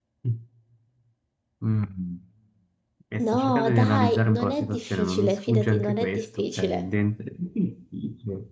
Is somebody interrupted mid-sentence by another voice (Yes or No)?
Yes